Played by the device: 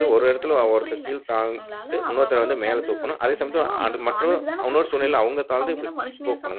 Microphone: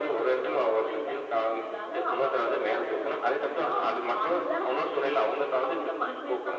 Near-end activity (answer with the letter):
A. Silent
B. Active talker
A